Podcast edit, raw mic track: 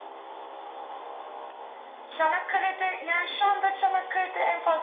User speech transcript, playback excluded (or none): none